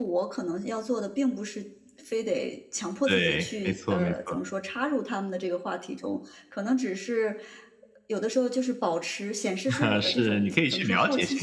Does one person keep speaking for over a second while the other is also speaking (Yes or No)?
Yes